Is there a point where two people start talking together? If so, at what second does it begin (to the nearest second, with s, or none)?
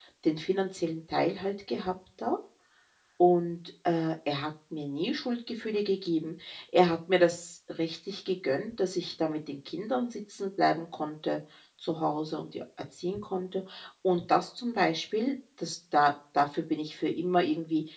none